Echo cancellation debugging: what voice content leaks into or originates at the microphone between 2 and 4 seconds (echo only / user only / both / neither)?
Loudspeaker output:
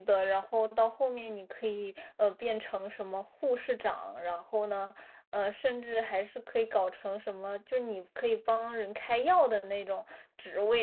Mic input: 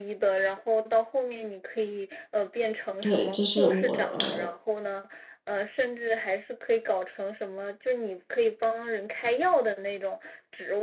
both